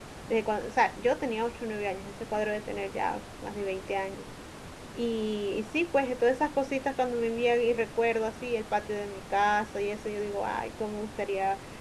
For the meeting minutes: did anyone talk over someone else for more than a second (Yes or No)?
No